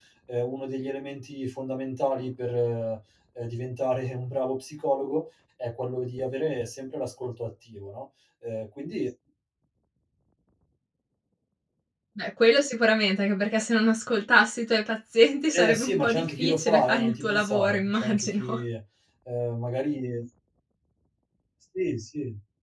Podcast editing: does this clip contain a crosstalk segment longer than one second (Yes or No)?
Yes